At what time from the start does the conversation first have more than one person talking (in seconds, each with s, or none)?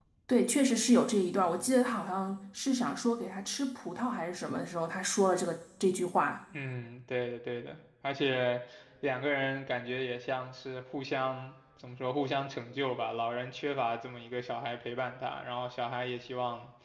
none